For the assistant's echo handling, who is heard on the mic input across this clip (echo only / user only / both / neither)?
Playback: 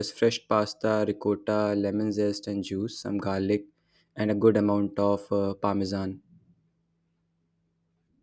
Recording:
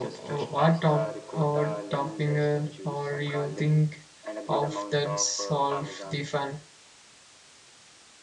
both